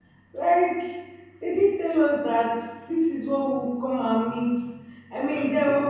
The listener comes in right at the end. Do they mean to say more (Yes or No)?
No